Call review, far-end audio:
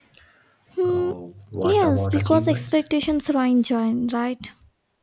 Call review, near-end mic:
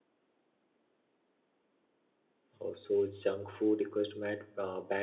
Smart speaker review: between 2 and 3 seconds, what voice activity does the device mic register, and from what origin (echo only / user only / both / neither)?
user only